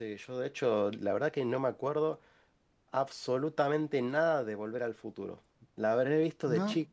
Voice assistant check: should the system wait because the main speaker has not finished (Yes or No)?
Yes